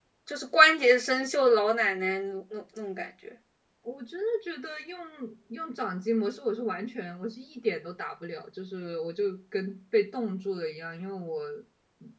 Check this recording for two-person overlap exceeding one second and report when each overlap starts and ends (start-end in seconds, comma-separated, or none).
none